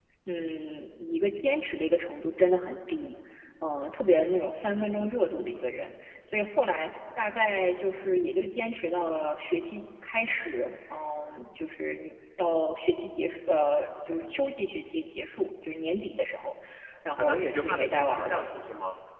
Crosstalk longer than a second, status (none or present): present